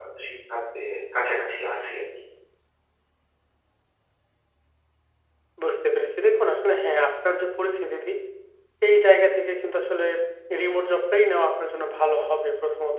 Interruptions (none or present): none